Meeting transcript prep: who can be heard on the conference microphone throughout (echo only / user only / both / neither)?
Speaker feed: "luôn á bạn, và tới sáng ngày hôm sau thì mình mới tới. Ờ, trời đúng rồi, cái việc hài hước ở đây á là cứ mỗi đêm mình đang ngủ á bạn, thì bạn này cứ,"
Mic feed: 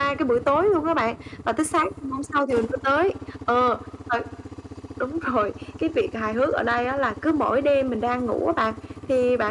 echo only